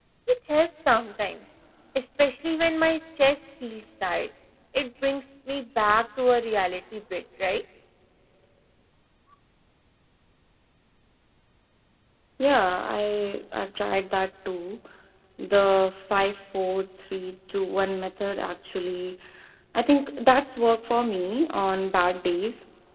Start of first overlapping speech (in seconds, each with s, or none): none